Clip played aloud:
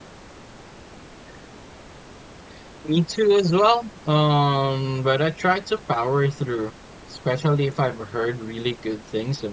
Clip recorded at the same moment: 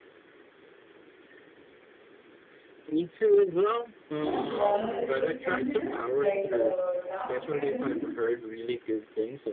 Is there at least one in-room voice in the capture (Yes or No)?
Yes